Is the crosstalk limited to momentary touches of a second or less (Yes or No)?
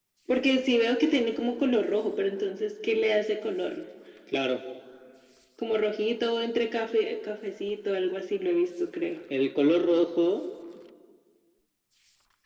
Yes